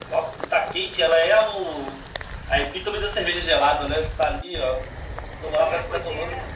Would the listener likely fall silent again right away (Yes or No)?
No